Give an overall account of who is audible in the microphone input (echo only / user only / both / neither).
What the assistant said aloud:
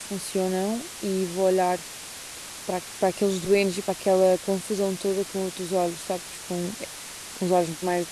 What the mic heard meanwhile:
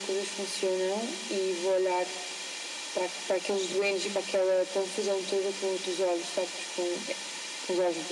echo only